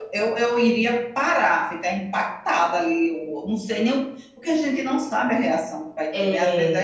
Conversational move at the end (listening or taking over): listening